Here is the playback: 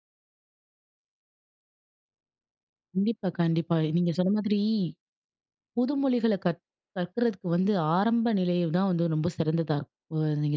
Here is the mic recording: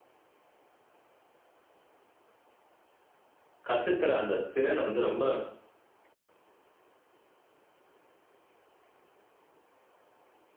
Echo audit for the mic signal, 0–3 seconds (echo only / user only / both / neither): neither